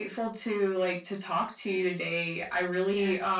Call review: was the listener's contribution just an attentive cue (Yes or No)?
Yes